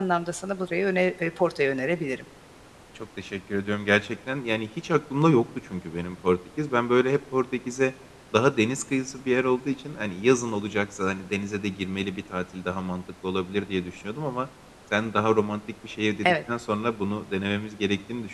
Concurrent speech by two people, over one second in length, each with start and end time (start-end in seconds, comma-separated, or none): none